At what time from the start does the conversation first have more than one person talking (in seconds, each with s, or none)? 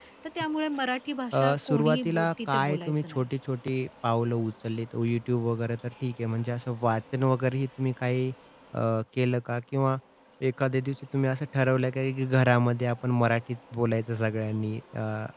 1.3 s